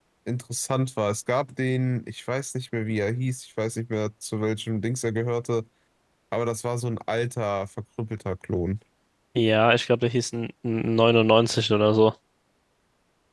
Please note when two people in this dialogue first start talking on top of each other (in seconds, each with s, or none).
none